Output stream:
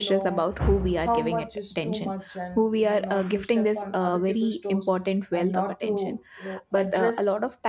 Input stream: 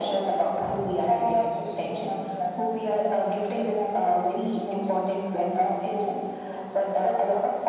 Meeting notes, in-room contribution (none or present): none